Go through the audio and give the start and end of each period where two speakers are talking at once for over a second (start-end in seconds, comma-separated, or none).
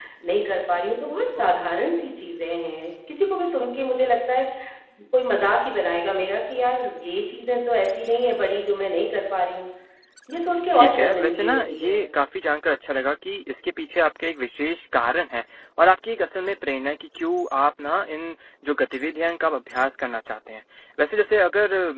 10.7-12.0